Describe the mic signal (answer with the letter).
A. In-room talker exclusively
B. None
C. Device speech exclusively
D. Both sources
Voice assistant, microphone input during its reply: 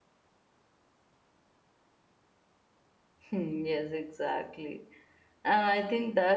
A